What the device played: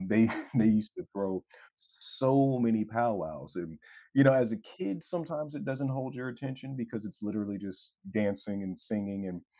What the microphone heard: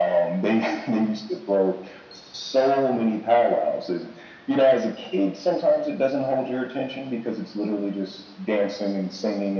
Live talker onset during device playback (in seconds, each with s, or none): none